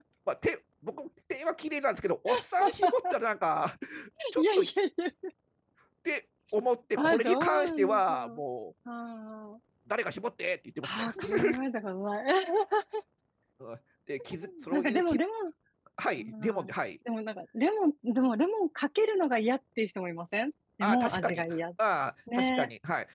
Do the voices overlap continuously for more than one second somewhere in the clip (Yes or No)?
Yes